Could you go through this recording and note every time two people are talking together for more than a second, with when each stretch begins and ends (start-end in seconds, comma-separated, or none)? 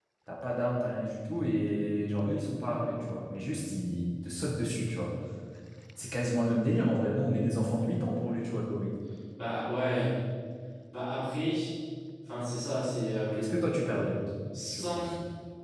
none